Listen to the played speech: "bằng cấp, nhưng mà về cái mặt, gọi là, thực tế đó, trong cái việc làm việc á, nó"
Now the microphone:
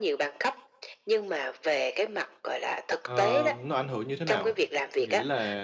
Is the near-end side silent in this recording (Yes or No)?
No